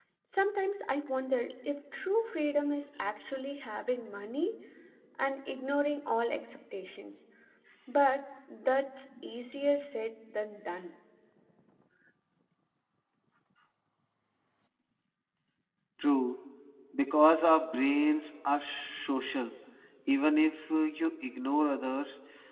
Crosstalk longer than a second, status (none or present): none